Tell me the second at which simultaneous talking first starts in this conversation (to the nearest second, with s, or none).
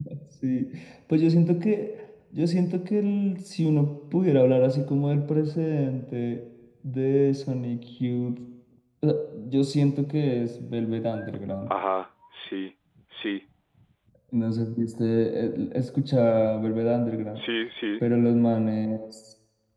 none